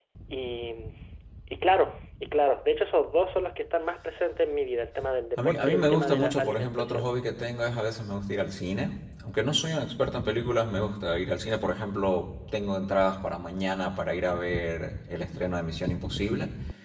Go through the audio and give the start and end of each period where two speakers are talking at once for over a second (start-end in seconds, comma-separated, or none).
5.4-7.1